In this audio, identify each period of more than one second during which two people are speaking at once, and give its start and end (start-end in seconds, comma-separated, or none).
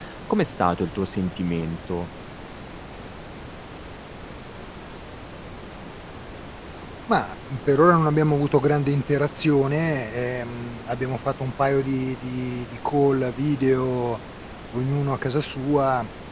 none